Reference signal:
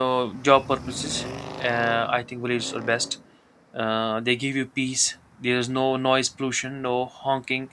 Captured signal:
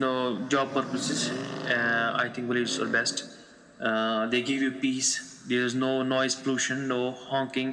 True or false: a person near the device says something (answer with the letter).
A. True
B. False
B